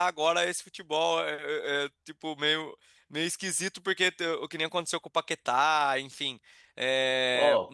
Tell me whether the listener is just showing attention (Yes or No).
No